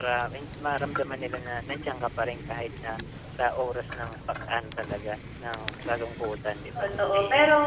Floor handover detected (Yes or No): Yes